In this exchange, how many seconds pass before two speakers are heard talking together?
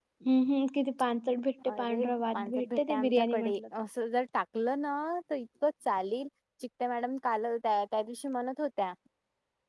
1.7 s

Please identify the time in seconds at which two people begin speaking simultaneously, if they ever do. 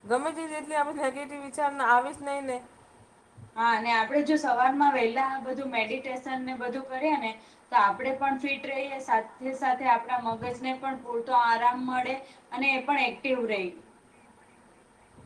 none

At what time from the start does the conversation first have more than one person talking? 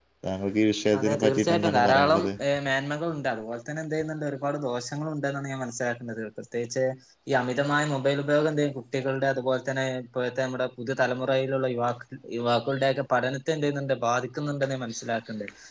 1.0 s

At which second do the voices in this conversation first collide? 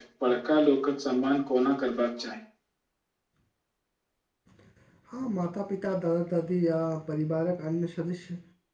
none

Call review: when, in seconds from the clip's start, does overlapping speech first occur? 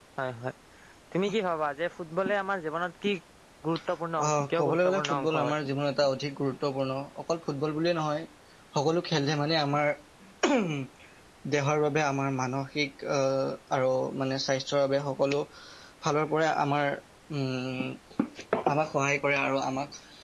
4.2 s

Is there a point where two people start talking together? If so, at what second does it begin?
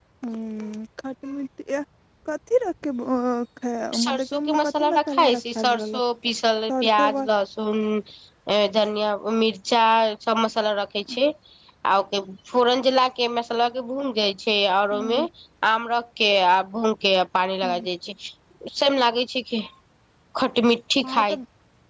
3.9 s

